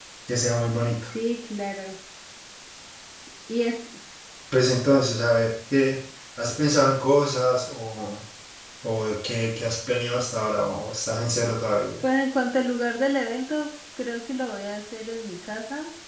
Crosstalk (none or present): none